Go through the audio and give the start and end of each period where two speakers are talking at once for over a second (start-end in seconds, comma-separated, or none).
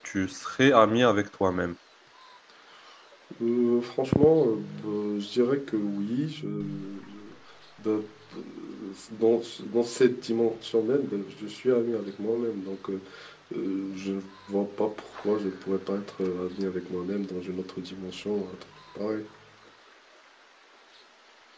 none